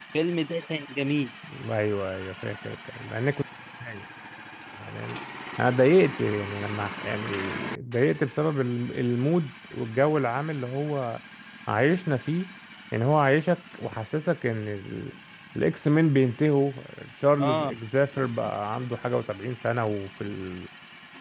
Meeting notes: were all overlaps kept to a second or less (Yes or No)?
Yes